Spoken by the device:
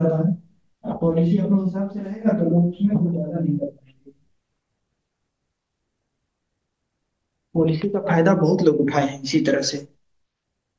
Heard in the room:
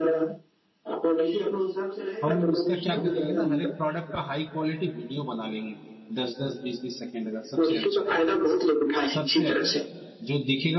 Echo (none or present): present